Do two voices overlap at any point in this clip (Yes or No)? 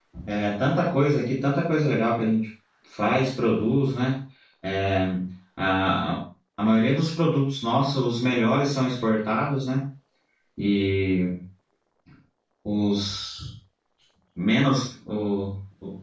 No